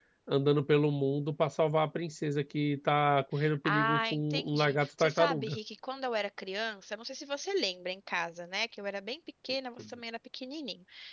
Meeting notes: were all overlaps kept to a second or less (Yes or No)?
No